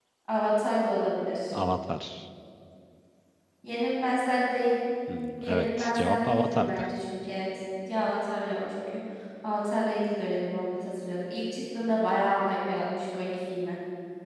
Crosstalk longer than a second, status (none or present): present